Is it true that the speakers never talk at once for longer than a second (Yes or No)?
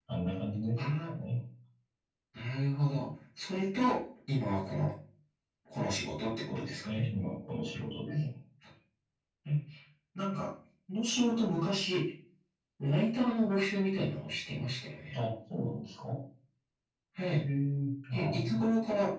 Yes